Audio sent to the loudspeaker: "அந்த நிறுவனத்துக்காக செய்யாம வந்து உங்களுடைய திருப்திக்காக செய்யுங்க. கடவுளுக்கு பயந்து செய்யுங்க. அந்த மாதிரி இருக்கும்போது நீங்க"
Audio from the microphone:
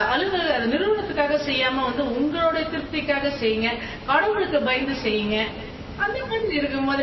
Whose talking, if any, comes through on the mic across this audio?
echo only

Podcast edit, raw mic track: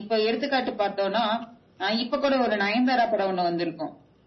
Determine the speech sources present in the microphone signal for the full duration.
echo only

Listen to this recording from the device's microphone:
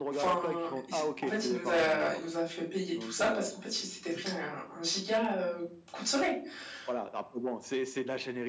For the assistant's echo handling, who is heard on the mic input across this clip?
both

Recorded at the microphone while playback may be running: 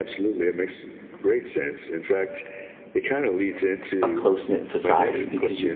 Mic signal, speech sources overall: both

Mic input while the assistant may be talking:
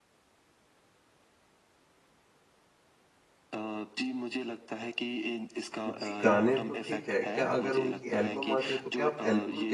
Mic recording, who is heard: both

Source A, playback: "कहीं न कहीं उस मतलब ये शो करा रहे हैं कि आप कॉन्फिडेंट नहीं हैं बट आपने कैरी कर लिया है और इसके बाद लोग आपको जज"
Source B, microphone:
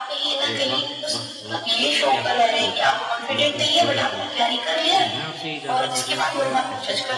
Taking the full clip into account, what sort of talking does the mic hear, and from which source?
both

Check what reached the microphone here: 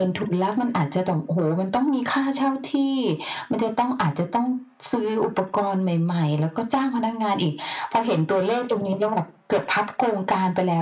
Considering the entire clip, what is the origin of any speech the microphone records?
echo only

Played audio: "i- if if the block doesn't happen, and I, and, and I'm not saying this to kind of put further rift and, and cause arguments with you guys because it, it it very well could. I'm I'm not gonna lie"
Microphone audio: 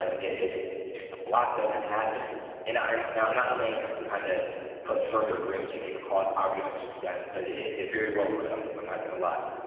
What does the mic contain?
echo only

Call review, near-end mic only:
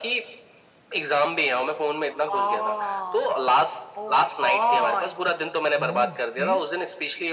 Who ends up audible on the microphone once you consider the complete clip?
both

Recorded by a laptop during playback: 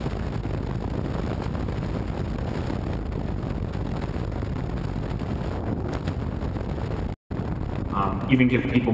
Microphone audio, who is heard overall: user only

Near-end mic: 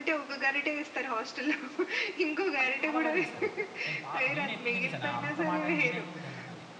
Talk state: both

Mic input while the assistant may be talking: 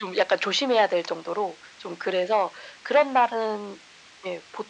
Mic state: echo only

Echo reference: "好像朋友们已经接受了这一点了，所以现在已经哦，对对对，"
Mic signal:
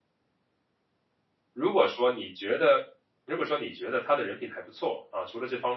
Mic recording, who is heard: user only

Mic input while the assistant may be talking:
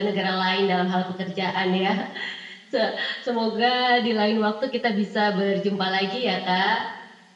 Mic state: echo only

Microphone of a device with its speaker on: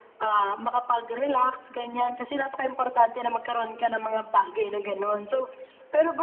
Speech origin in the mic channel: echo only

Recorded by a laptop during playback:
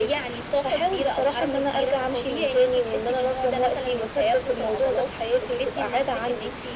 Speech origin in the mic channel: echo only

